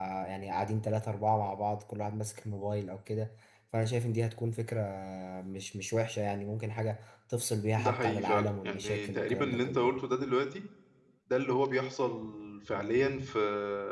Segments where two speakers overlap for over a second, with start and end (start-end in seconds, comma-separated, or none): 7.8-9.8